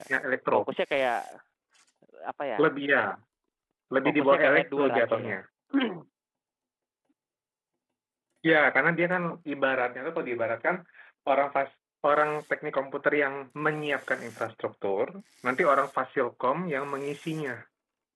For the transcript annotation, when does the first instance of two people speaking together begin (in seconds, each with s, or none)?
4.0 s